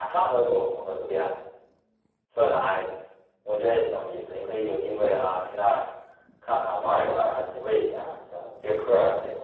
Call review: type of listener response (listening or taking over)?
taking over